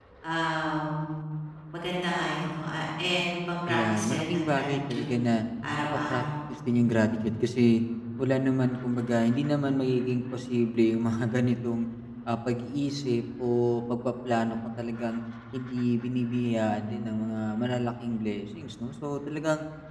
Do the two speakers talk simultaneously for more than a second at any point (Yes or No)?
Yes